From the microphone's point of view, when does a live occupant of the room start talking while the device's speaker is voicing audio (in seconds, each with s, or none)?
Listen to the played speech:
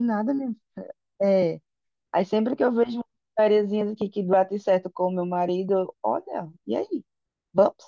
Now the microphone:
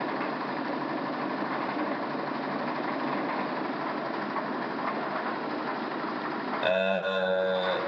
6.6 s